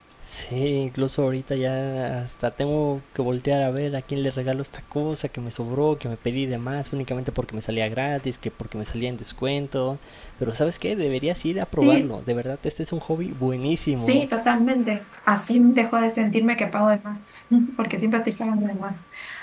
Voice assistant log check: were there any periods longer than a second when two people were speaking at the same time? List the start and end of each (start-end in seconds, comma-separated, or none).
none